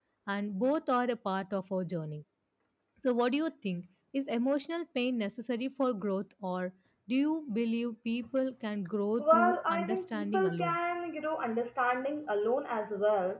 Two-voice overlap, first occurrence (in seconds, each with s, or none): 9.2 s